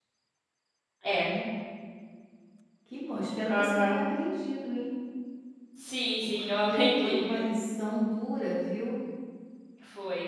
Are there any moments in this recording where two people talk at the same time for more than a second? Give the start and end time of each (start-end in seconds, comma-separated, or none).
6.2-7.4